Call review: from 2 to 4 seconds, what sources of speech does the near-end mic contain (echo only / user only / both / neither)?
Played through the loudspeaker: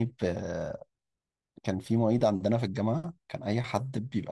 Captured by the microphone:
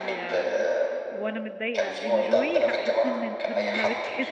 both